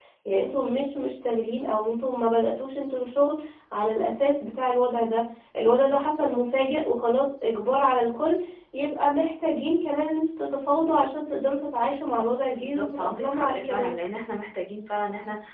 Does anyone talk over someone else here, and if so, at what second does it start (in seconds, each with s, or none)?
12.6 s